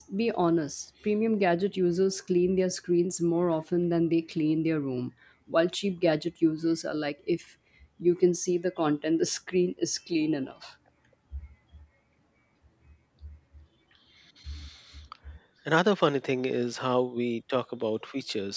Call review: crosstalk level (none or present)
none